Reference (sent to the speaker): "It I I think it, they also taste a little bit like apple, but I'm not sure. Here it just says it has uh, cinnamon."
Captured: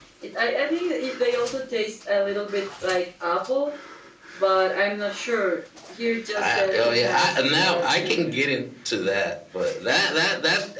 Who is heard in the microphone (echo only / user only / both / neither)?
both